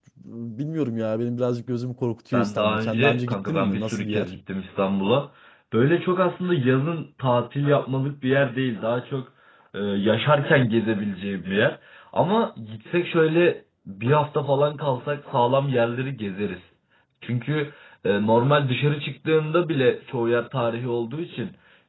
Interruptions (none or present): present